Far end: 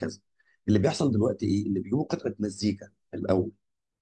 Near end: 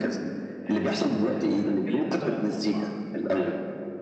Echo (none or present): present